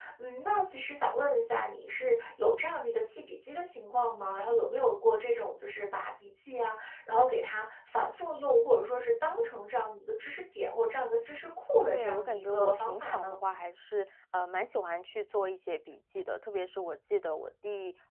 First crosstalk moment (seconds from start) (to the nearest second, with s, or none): 12 s